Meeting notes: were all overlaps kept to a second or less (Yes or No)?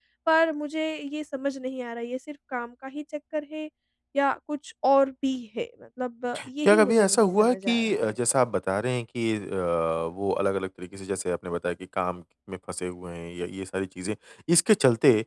No